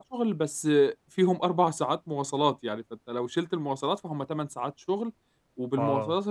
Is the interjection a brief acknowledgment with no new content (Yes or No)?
Yes